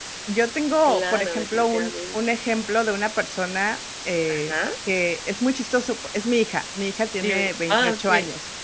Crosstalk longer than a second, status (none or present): present